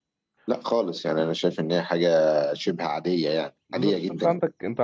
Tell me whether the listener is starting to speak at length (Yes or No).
Yes